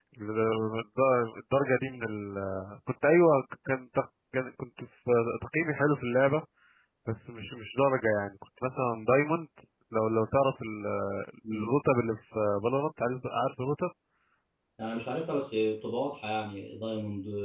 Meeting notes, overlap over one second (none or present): none